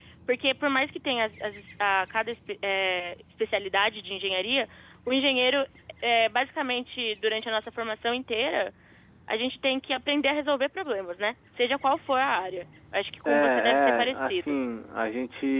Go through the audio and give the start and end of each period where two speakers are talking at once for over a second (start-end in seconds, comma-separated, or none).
13.2-14.6